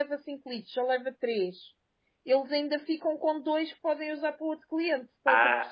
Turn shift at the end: Yes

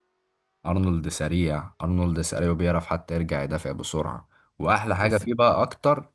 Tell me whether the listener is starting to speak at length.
No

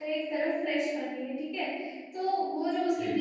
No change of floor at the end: Yes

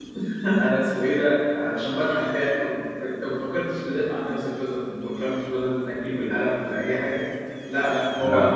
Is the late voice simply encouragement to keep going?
No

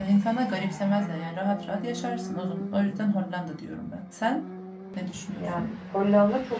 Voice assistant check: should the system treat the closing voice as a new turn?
Yes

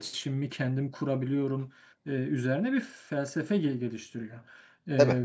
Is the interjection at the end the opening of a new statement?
No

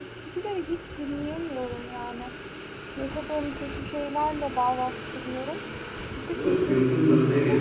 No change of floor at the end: No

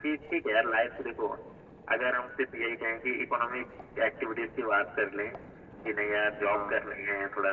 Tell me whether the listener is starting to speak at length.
No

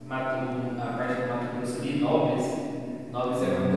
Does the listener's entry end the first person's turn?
No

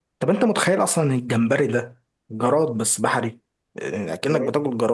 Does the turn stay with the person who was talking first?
Yes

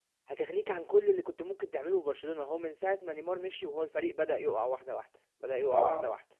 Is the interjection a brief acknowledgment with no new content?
Yes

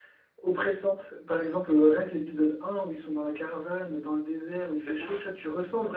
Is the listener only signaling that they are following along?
Yes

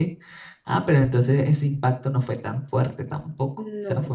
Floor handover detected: No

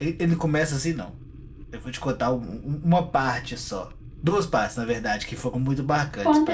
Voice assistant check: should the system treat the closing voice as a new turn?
Yes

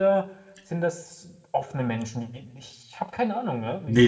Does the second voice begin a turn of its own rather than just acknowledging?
Yes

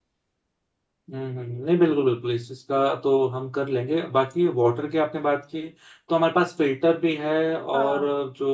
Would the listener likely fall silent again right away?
Yes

